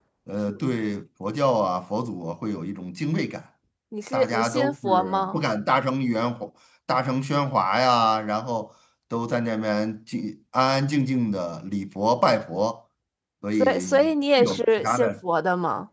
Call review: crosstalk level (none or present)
present